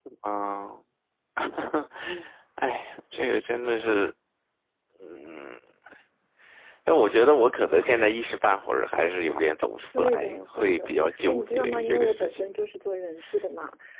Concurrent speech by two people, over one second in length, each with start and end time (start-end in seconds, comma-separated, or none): 10.0-12.5